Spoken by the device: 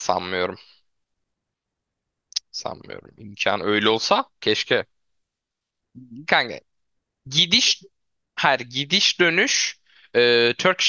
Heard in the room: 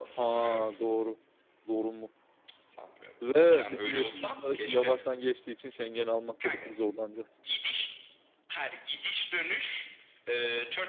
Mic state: both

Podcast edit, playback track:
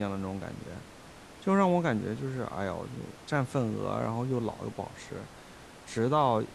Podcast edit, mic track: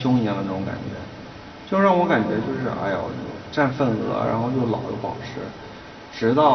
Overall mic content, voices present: echo only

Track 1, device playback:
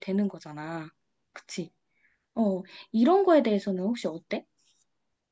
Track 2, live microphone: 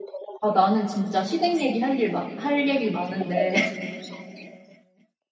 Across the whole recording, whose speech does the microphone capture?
both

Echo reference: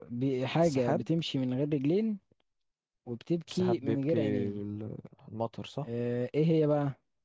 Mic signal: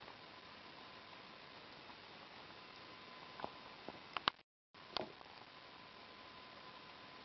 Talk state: neither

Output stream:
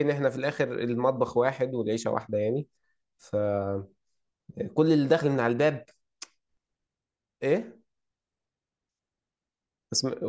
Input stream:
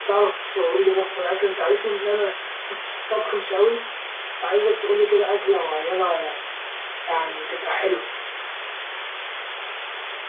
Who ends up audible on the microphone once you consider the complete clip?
user only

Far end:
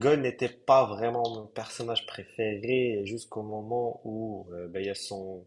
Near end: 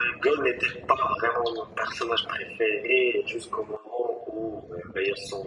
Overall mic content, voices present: echo only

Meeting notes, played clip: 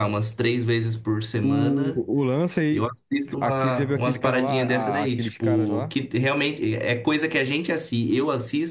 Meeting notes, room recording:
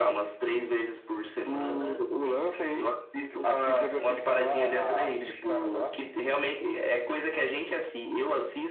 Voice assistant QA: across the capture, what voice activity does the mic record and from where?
echo only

